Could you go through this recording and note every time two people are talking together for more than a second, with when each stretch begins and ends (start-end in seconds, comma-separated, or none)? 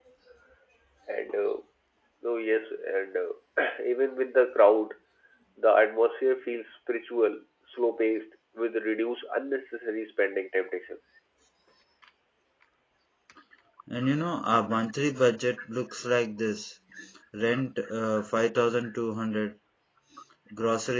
none